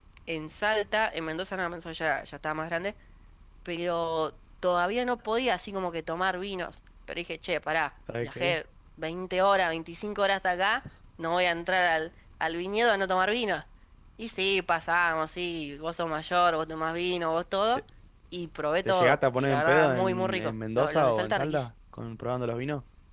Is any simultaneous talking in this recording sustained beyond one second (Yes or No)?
Yes